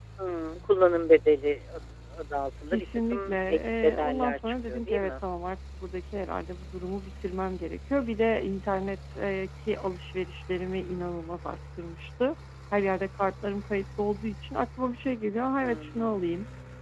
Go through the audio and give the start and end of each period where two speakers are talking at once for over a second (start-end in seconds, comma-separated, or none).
2.7-5.1